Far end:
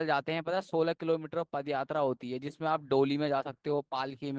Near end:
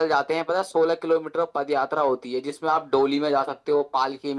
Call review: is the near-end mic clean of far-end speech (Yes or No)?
No